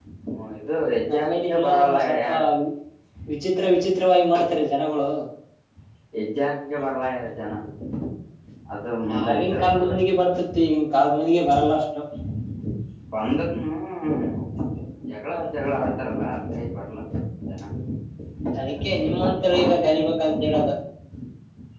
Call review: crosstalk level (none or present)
present